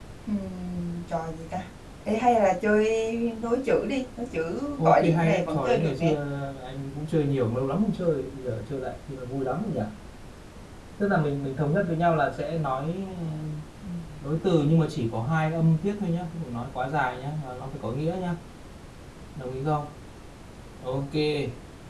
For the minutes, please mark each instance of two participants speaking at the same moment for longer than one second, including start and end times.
4.8-6.1

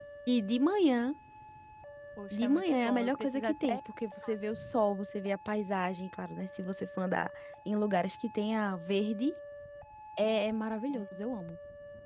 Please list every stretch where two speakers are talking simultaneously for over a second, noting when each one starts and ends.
2.3-3.8

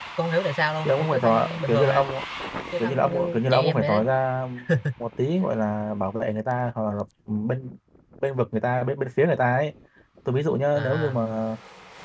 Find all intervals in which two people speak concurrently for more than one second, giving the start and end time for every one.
0.8-2.0, 2.8-4.1

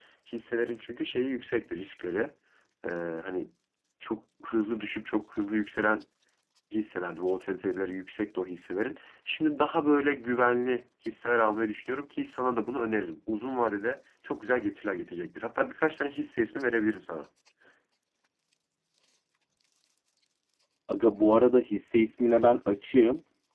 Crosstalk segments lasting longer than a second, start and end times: none

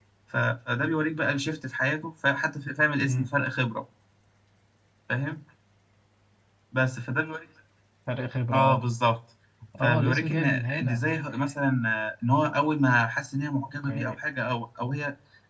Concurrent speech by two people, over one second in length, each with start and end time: 9.8-11.0

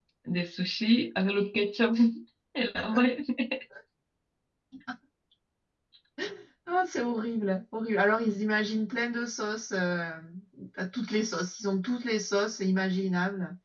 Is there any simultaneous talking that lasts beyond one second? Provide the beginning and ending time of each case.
none

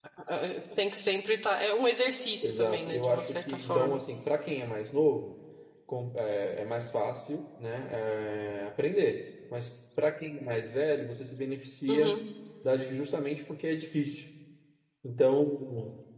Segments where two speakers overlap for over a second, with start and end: 2.4-4.0

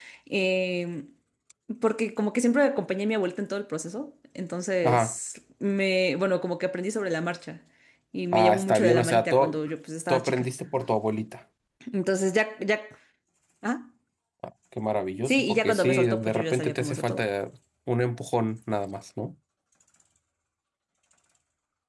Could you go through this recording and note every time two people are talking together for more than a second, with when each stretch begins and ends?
8.3-9.6, 15.2-17.2

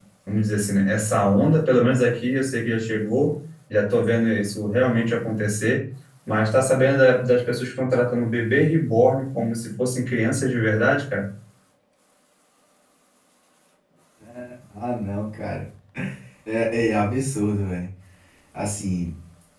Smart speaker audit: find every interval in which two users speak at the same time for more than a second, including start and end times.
none

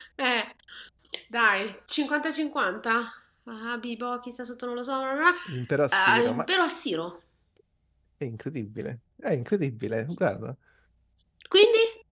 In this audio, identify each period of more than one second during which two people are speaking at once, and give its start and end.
none

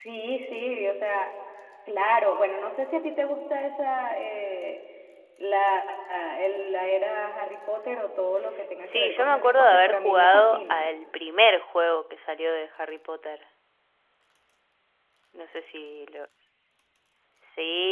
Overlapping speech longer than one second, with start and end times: 8.8-10.9

